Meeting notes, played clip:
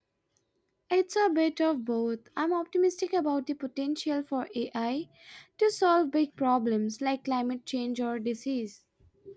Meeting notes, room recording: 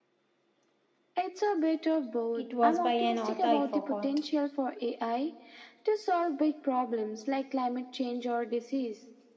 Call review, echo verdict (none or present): present